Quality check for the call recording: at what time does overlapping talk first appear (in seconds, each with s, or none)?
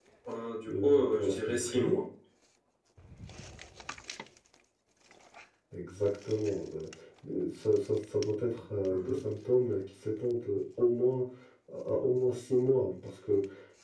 0.7 s